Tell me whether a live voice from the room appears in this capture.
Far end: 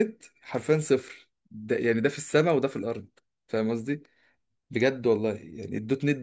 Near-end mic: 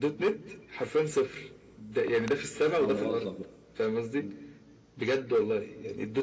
Yes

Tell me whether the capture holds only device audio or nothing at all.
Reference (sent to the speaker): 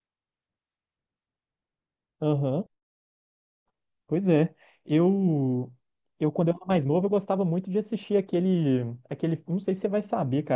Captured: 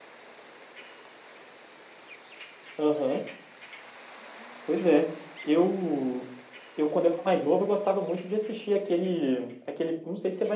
Yes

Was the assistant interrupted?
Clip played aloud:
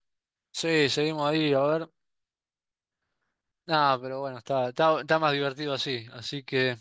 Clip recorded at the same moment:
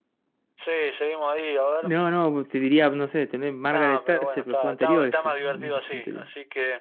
Yes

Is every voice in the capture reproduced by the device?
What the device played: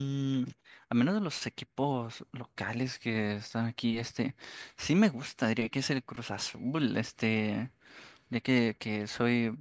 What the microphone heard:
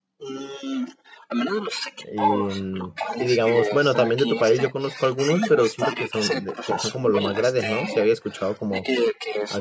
No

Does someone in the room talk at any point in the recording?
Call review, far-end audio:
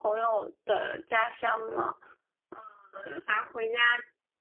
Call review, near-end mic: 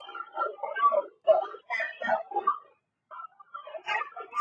No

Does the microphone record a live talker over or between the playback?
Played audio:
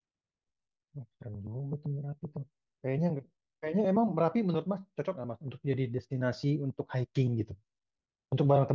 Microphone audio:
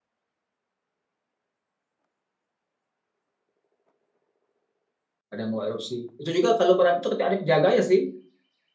Yes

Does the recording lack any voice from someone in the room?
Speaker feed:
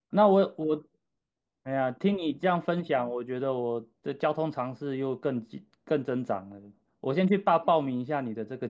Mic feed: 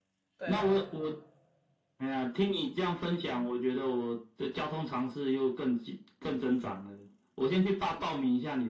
No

